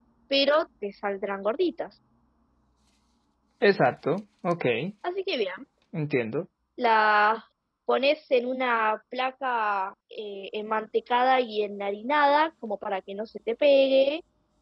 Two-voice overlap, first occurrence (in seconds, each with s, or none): none